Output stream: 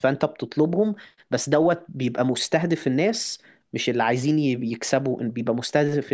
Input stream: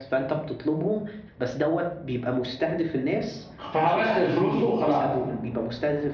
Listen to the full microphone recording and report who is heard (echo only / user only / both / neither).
both